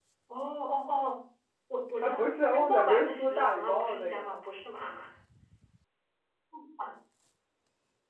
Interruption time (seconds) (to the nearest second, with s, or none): 2 s